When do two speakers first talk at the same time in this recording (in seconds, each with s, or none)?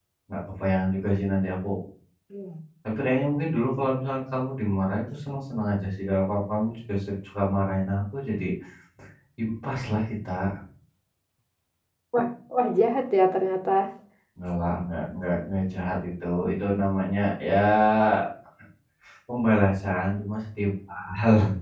none